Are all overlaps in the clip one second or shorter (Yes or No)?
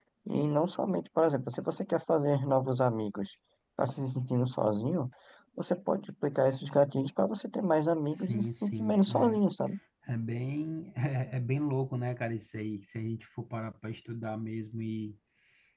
No